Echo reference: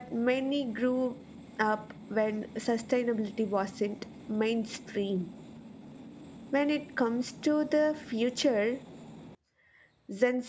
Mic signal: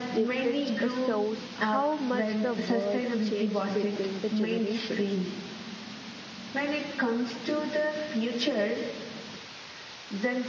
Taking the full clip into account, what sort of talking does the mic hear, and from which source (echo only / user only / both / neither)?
both